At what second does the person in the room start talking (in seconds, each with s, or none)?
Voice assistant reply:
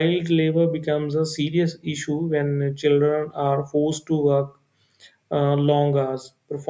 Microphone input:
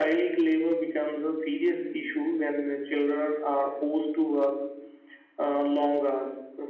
none